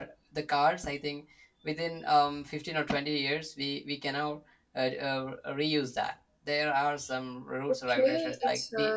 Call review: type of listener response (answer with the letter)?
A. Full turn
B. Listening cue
A